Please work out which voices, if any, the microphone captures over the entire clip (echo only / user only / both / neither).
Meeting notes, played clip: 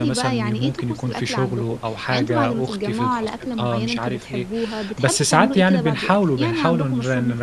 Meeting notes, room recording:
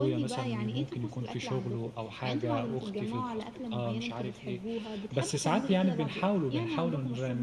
echo only